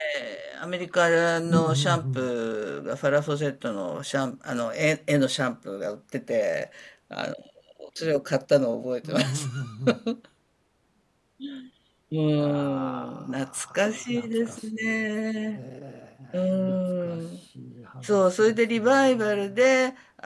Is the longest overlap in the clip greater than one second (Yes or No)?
Yes